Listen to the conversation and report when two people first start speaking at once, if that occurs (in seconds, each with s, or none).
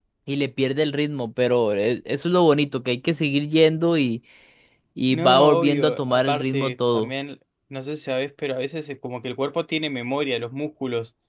5.1 s